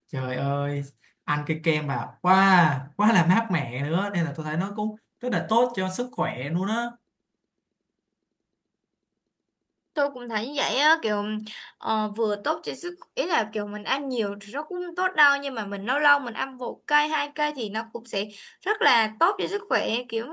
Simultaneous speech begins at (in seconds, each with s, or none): none